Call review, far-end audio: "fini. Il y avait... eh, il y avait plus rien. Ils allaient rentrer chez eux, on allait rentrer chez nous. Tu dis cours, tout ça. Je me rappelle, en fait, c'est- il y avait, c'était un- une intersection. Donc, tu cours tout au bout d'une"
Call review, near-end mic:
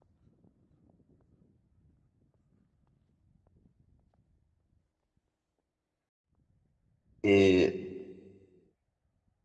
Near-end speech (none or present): present